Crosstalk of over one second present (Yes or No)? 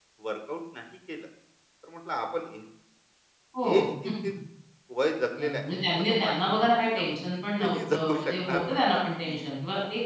Yes